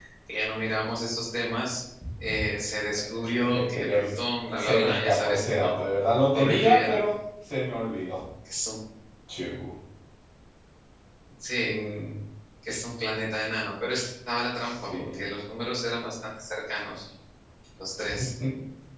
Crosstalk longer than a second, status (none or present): present